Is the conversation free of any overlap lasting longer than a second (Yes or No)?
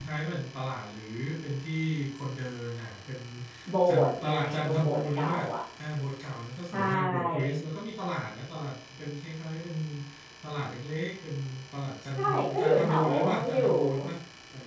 No